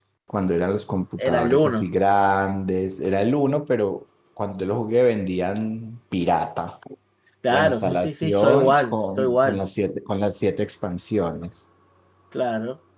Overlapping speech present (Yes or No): Yes